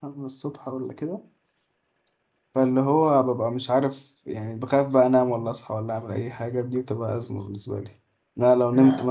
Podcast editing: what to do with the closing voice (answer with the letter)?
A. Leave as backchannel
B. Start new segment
A